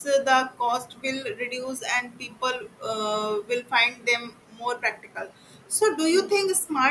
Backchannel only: Yes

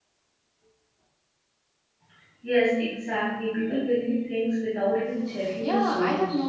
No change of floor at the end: No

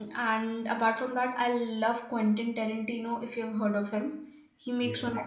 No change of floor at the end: Yes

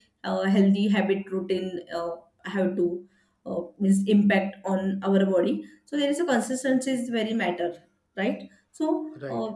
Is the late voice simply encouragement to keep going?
No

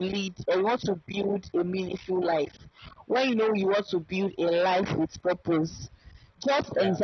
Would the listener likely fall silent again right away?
Yes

